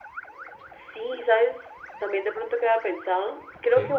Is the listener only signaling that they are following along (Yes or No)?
Yes